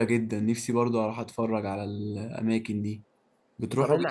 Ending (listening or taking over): taking over